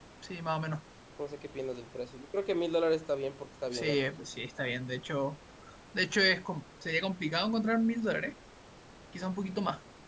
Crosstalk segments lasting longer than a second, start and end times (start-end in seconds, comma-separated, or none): none